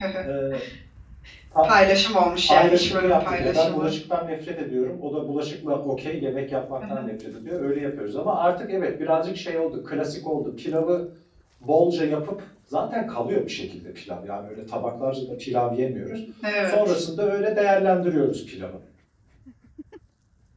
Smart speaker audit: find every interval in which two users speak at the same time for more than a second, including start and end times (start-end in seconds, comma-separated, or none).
2.5-3.9